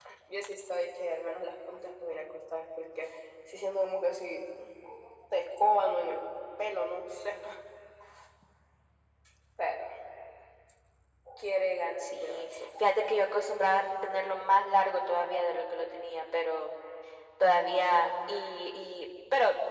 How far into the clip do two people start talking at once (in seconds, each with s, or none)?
12.0 s